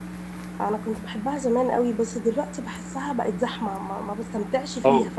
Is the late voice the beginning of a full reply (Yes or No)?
Yes